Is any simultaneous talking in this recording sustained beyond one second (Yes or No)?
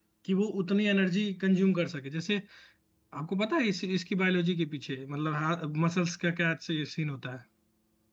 No